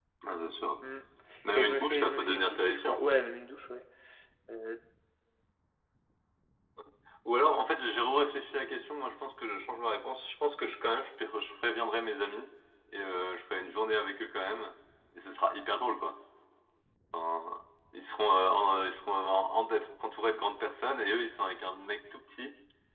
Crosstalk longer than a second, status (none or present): present